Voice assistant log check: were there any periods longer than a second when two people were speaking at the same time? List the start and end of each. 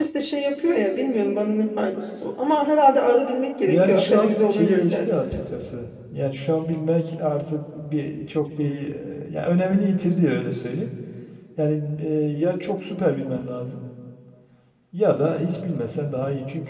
3.7-5.4

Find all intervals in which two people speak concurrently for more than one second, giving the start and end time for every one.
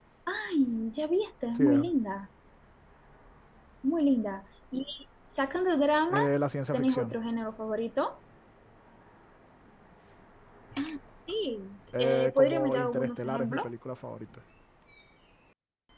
12.0-13.7

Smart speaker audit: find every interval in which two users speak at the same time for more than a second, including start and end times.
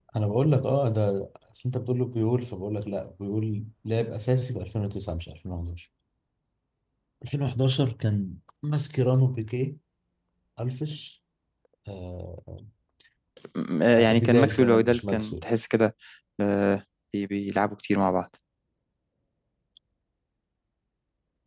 13.9-15.5

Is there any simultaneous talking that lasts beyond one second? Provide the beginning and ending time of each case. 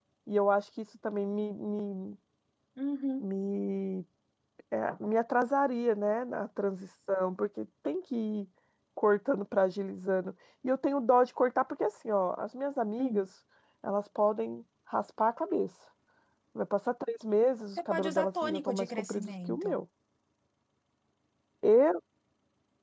17.8-19.8

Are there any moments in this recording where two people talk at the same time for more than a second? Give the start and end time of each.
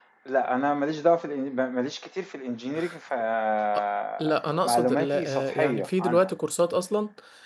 4.7-6.3

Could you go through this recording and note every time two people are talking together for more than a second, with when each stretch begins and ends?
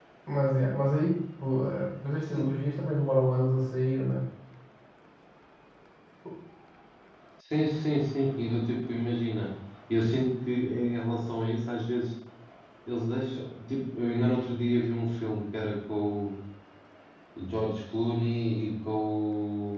none

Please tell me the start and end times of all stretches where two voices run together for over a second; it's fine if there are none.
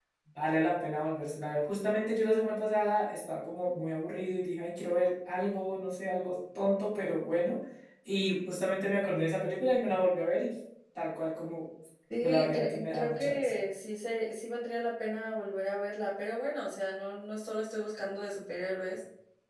12.2-13.5

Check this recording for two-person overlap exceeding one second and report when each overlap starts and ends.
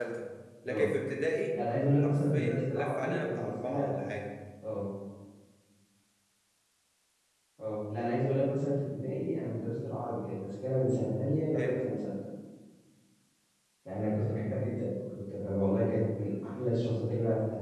2.0-3.9

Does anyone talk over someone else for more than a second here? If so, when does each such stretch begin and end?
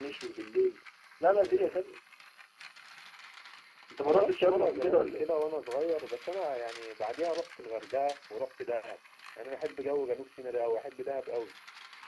4.0-5.3

